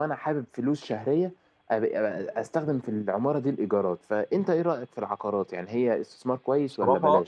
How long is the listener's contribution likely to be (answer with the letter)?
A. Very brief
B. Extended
B